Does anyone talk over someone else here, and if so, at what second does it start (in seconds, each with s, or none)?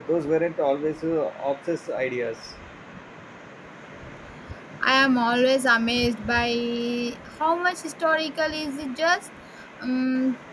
none